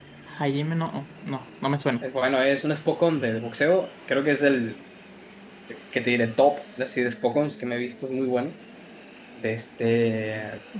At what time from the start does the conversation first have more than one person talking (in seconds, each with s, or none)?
none